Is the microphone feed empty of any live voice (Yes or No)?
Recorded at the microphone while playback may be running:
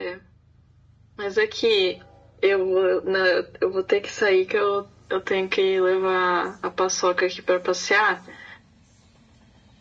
Yes